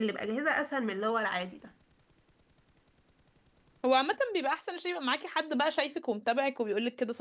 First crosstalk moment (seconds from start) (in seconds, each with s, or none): none